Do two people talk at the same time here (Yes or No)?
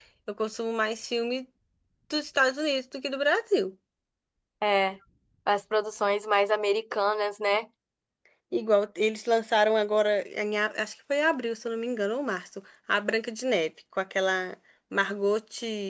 No